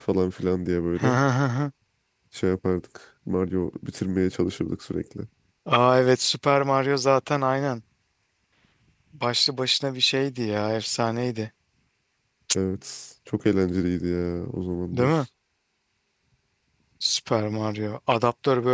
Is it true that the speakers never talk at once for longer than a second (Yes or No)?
Yes